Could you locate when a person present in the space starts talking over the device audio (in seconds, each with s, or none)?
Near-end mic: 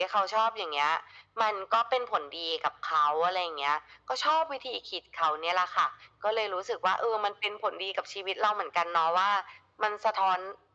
none